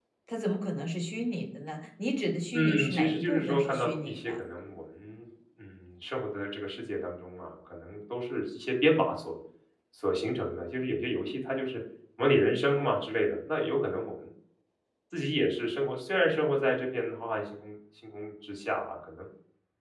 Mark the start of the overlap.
3 s

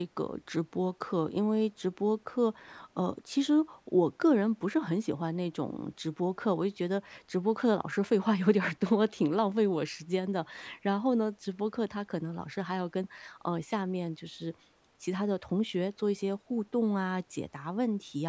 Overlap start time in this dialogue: none

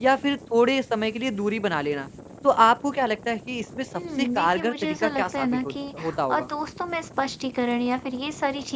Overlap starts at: 4 s

